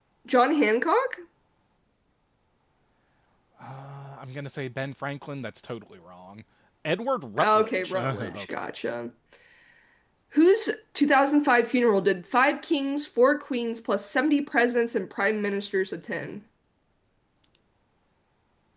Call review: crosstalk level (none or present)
present